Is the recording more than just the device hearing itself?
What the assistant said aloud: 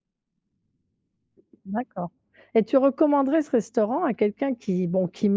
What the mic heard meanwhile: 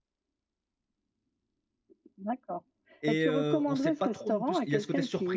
Yes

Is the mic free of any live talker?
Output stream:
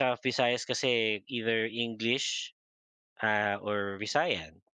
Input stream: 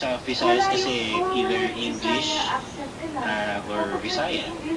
No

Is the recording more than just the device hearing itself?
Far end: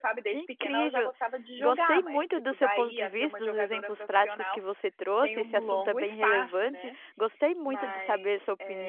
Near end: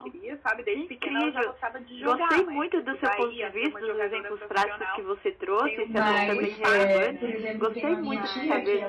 Yes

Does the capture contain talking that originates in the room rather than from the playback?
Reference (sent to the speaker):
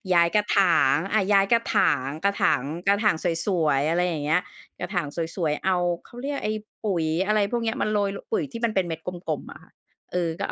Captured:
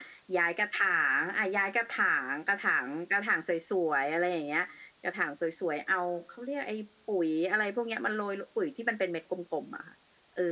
No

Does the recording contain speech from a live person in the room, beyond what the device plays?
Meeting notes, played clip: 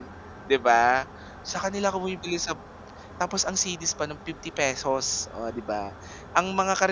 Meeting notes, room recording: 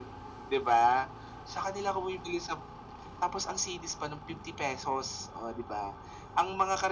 No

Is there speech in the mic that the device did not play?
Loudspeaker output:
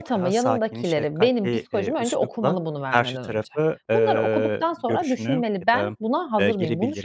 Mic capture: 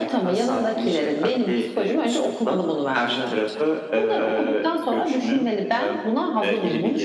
No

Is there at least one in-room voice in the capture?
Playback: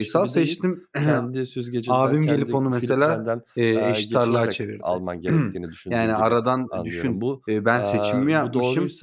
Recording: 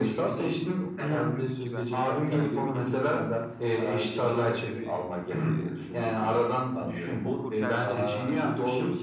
Yes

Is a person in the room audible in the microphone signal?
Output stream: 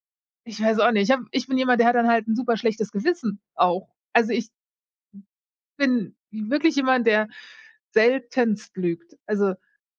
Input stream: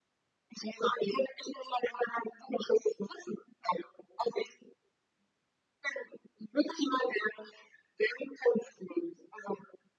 No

